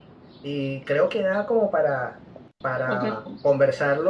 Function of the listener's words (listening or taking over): listening